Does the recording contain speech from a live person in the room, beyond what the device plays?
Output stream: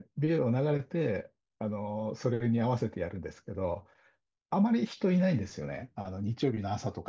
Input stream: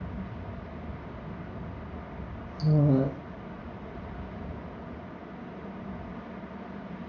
Yes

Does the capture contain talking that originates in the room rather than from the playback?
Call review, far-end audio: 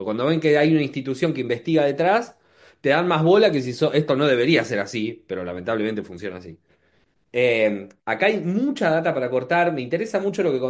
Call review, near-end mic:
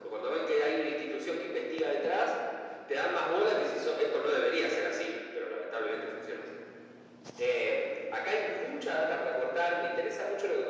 No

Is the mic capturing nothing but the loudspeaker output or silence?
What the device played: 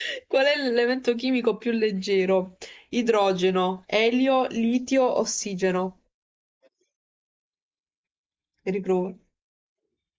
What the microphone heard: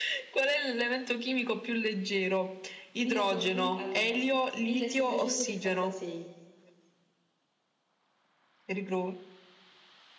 No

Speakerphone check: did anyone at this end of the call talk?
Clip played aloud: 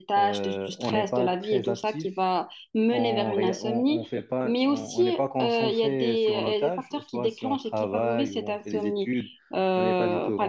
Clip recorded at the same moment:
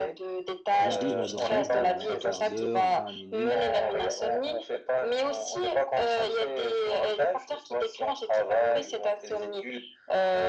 Yes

